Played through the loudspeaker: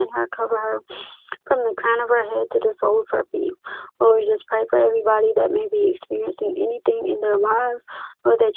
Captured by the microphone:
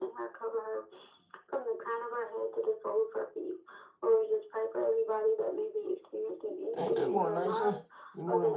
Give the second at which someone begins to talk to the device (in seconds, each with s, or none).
6.7 s